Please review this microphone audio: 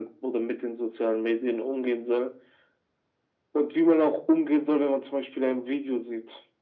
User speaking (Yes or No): No